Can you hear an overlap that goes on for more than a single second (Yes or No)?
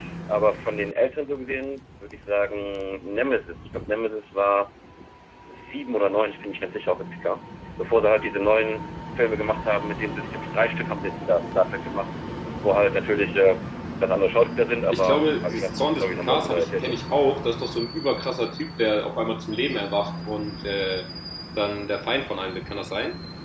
Yes